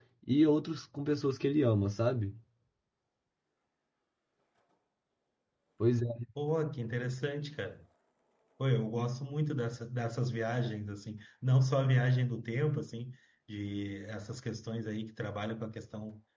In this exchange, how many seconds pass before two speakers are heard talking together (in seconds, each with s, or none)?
none